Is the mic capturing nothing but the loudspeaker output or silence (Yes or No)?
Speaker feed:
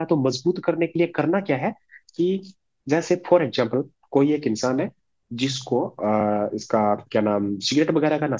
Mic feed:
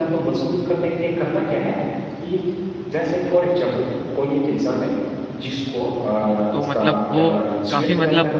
No